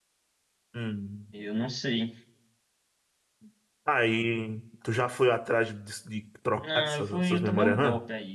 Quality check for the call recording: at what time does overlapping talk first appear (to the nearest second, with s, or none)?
7 s